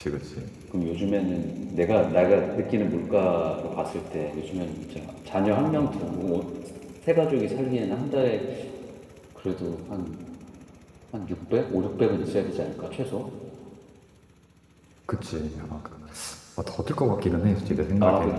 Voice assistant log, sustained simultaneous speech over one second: none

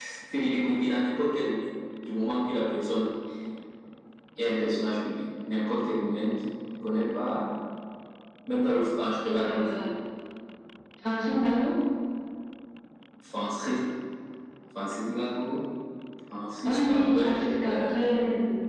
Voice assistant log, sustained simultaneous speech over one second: present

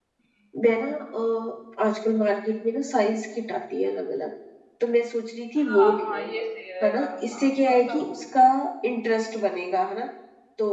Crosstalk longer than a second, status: present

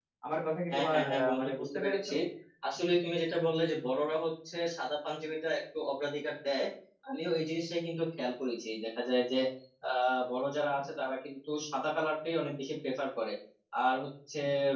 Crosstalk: present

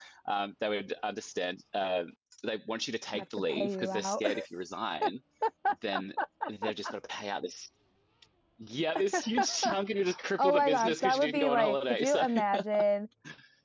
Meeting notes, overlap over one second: present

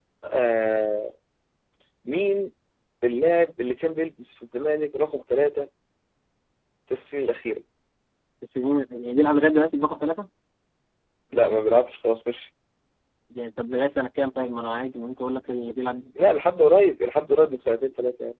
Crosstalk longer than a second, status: none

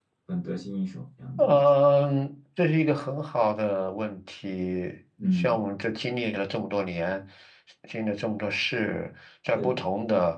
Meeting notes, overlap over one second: none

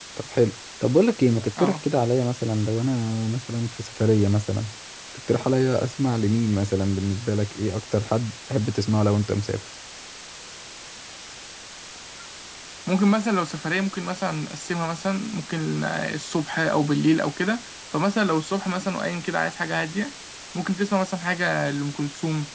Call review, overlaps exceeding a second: none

